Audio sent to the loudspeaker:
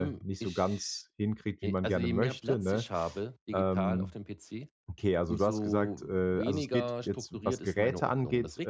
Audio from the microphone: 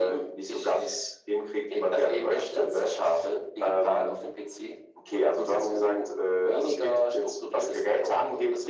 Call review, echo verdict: present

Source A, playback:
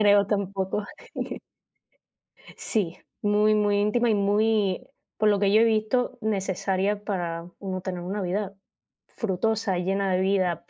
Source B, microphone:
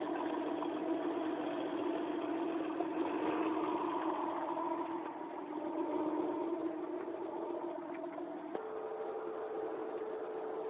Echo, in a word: none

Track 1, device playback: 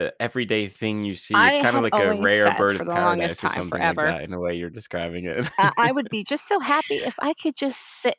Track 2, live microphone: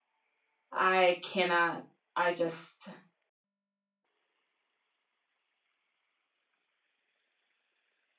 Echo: none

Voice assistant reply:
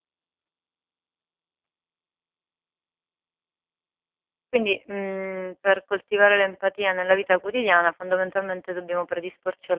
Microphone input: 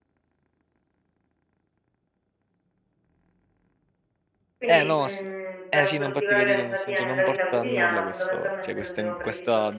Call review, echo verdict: present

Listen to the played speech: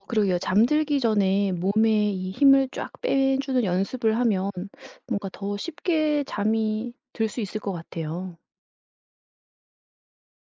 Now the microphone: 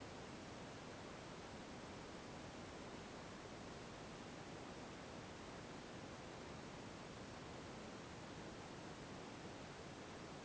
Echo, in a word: none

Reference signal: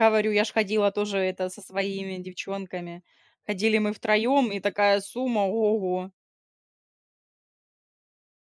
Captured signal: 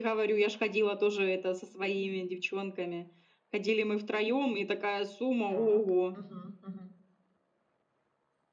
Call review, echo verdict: present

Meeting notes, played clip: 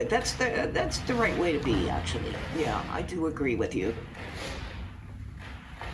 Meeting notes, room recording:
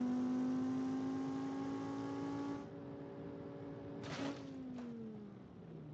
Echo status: none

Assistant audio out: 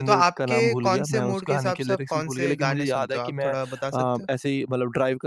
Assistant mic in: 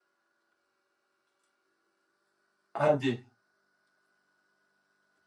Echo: none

